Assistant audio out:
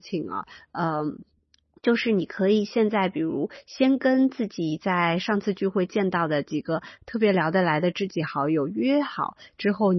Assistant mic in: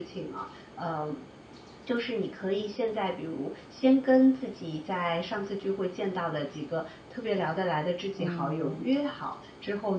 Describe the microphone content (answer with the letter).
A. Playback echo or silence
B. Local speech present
B